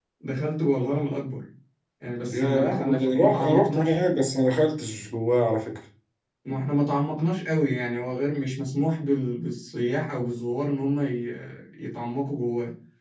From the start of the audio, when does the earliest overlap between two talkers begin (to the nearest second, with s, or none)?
2 s